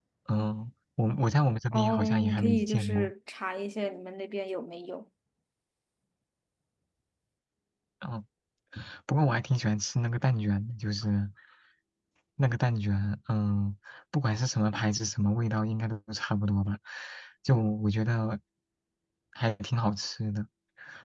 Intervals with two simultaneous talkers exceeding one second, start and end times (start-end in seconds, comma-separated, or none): 1.7-3.1